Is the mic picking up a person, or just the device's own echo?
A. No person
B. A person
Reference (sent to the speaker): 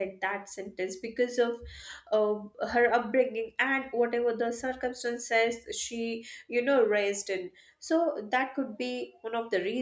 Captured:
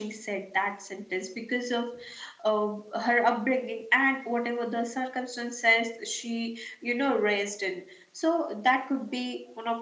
A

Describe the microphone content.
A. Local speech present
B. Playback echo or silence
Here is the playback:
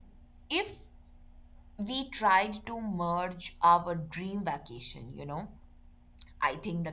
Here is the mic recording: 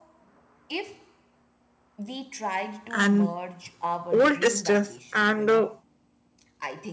A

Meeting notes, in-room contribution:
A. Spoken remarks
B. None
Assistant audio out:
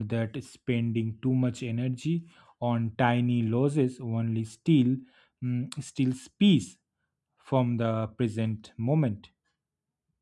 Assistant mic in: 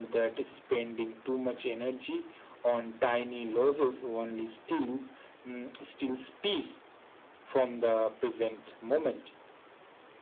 B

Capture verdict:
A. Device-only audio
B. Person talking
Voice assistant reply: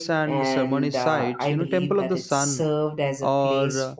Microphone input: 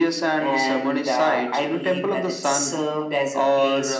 A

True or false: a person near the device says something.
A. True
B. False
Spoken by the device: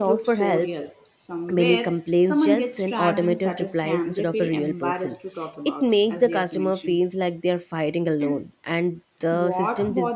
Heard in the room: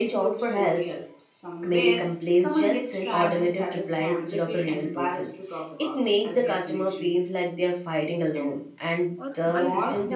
A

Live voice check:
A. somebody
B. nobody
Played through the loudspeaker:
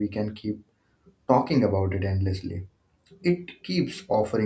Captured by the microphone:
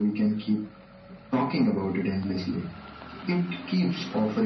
B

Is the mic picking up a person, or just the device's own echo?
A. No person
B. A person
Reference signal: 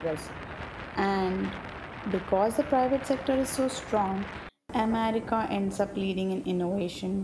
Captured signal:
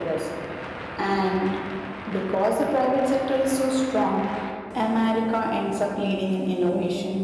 A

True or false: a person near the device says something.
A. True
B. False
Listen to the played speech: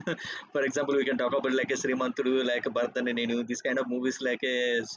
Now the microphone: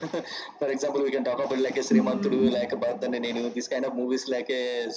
A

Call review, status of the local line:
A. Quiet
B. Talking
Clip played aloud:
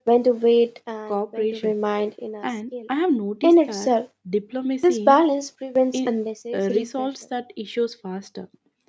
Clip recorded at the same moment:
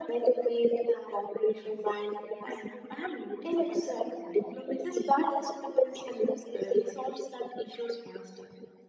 A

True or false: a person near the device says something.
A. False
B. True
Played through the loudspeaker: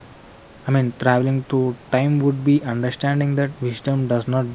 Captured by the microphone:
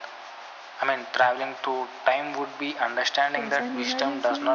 B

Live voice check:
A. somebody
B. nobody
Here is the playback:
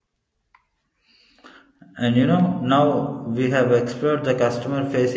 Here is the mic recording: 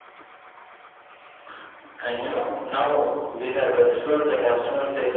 B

